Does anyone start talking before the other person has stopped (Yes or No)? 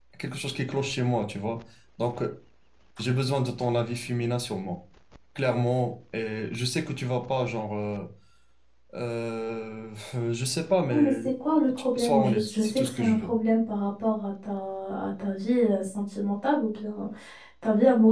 Yes